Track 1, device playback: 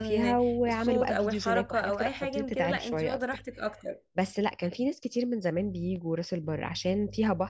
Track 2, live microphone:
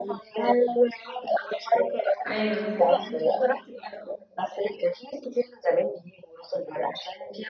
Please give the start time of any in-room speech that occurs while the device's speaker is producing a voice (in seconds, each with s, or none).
2.3 s